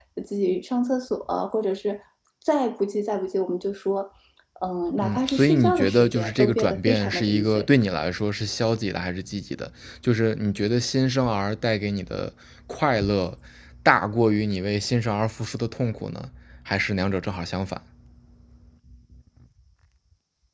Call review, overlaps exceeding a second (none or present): present